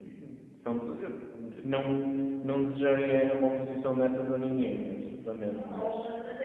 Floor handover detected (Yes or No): Yes